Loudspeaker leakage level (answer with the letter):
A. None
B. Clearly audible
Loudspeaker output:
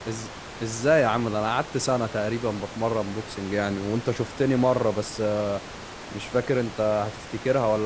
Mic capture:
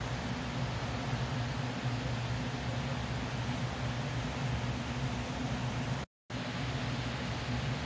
A